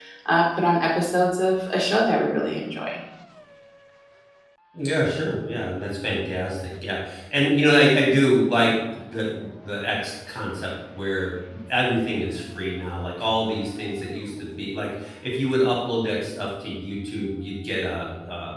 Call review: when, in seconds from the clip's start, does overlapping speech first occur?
none

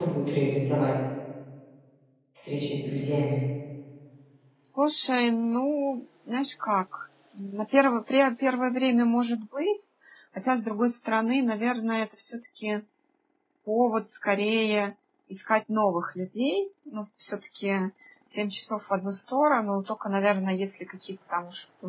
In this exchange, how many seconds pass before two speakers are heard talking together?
none

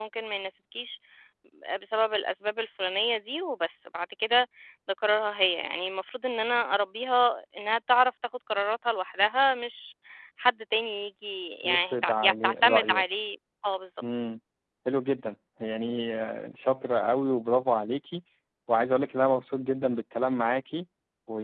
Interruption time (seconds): 11.6 s

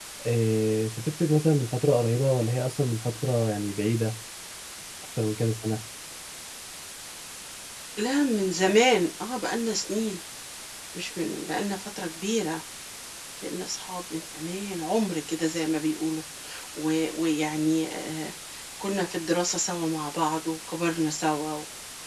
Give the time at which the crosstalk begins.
none

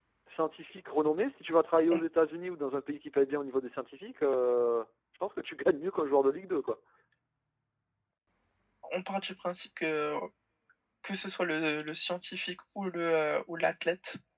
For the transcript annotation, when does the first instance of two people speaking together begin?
none

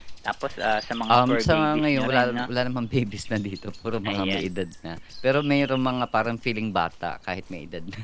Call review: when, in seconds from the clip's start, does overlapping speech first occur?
1.1 s

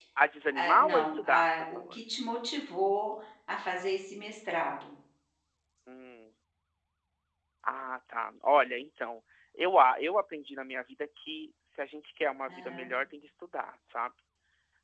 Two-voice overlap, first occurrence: 0.5 s

